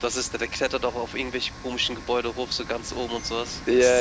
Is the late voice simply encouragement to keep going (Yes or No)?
No